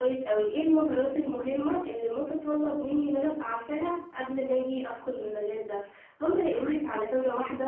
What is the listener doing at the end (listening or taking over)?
listening